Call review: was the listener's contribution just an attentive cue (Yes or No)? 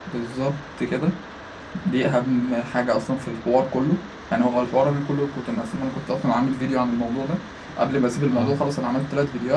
Yes